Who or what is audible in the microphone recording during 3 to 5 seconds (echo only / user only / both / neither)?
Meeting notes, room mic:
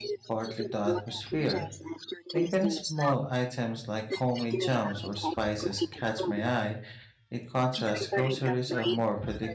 both